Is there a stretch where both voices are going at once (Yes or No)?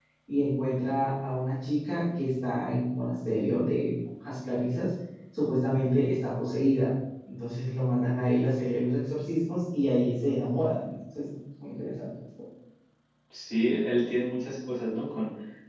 No